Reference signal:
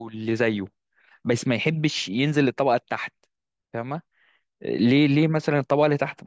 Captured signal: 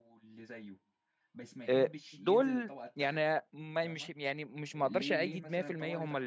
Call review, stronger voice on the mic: user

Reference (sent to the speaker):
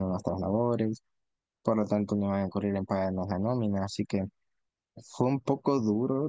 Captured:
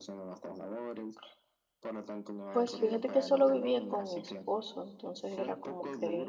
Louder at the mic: user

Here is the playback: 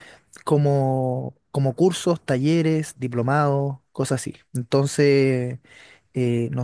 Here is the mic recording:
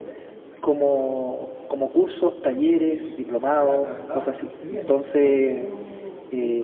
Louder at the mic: echo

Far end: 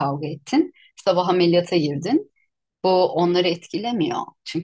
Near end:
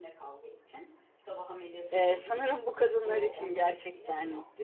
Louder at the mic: user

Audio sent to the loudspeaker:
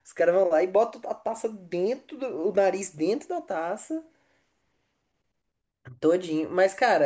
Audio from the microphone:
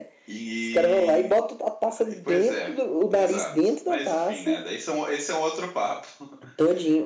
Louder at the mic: echo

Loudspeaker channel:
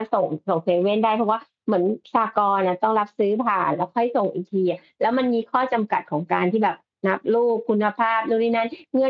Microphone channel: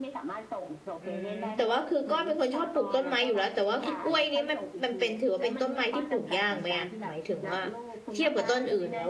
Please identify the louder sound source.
user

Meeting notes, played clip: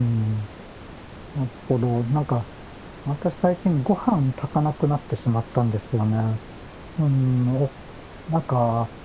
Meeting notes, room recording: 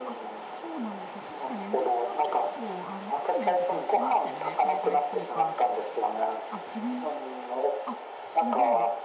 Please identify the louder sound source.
echo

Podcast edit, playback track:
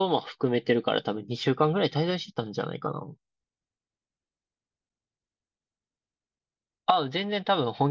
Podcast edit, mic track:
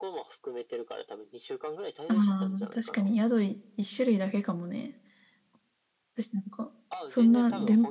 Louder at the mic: user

